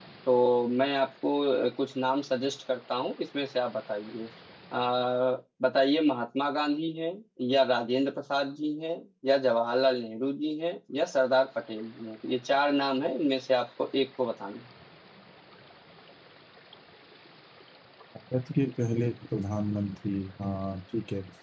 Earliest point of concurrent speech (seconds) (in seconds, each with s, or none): none